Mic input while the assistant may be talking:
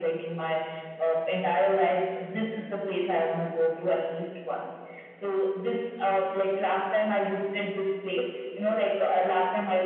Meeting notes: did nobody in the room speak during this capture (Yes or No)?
Yes